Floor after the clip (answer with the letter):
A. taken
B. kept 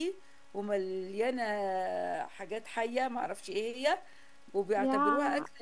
B